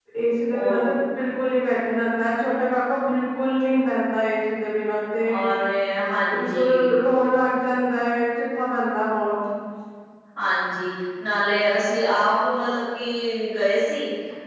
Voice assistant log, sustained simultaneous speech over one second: none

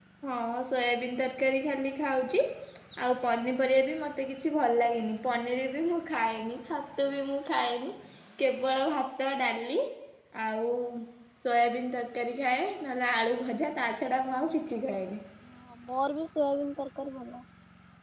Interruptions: none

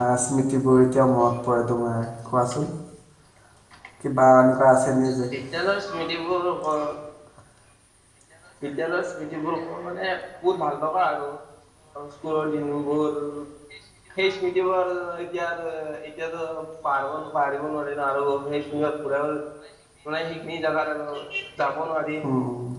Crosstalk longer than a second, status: none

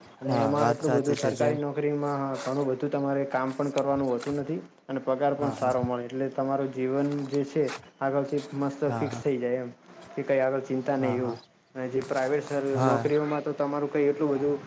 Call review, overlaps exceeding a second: present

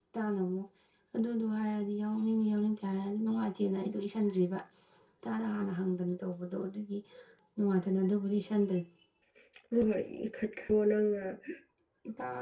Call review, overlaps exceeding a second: none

